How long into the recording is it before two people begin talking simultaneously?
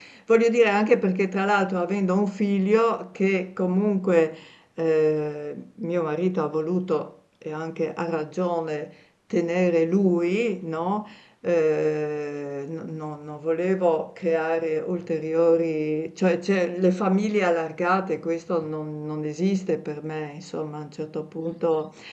none

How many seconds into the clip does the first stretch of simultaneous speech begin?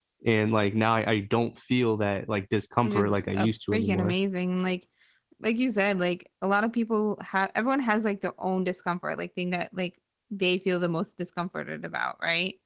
2.8 s

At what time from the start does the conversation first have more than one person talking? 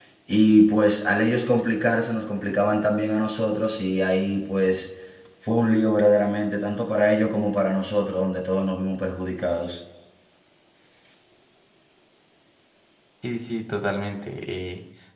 none

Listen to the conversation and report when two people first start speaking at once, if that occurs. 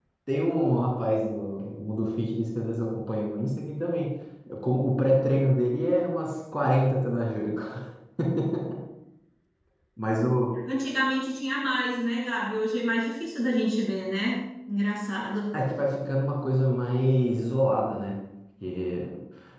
none

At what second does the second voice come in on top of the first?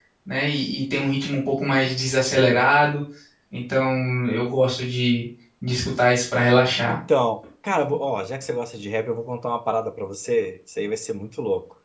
none

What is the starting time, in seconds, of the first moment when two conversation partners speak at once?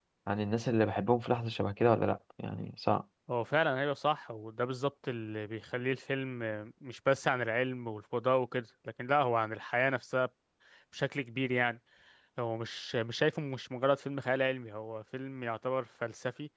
none

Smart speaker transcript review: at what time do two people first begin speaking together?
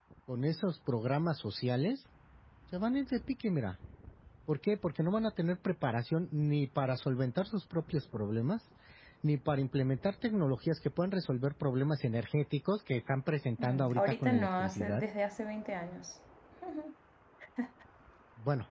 13.6 s

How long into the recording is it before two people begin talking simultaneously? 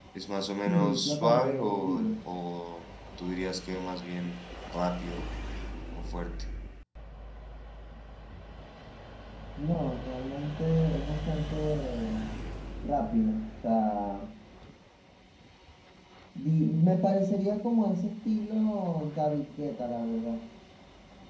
0.7 s

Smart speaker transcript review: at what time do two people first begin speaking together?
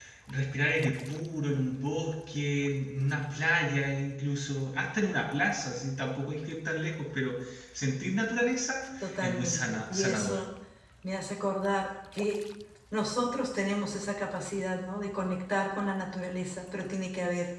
9.0 s

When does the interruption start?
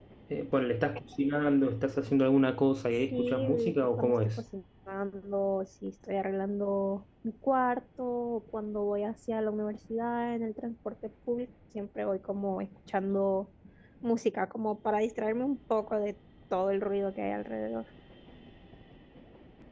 3.1 s

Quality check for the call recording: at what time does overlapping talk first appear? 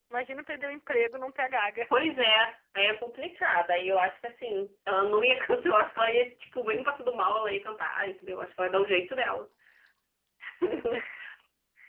none

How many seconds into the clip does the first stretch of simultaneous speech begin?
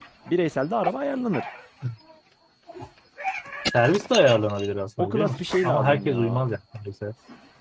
5.0 s

